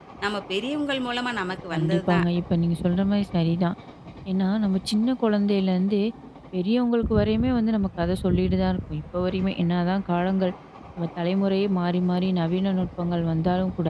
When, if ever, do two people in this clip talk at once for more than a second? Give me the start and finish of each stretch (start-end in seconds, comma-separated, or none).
none